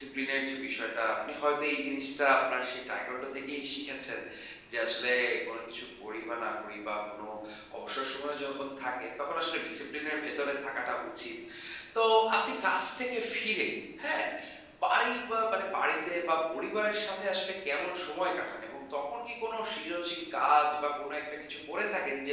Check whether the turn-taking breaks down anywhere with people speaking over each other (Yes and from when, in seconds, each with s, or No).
No